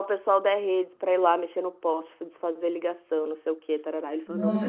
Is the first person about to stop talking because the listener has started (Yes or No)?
Yes